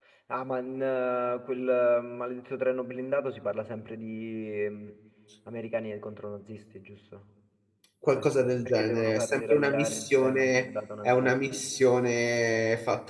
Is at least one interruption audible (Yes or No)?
Yes